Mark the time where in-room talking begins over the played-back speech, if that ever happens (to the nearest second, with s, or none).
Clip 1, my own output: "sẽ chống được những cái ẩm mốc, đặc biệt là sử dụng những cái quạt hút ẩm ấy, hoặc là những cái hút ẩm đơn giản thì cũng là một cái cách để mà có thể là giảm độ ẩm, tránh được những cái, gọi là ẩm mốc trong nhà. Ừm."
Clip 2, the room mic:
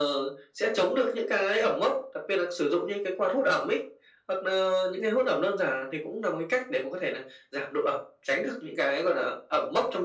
none